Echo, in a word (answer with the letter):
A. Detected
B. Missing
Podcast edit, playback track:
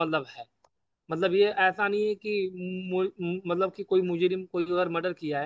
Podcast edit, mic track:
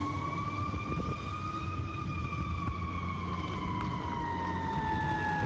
B